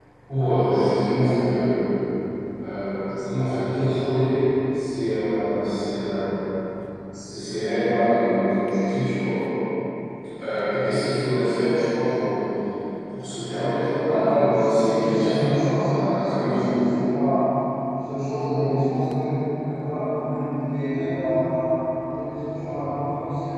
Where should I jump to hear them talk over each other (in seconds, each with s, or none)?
14.0 s